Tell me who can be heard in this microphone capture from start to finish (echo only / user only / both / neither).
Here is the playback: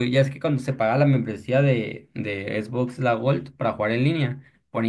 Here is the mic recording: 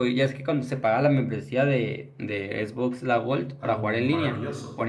both